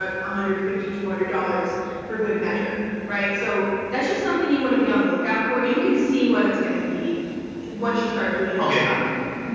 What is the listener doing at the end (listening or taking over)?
listening